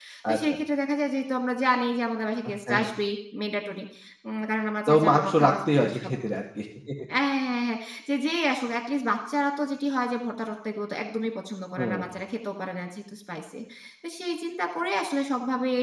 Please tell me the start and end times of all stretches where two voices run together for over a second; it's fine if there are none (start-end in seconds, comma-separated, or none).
4.9-6.1